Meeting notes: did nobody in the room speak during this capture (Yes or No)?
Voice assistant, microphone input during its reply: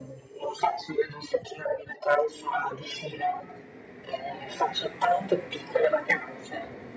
Yes